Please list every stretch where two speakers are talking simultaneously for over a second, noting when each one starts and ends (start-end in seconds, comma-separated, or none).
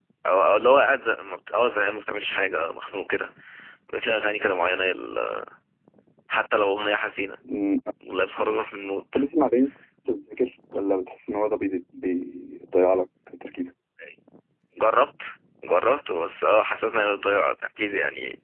none